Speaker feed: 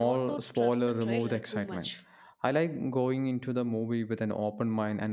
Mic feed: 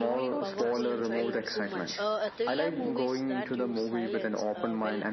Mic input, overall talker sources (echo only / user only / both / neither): both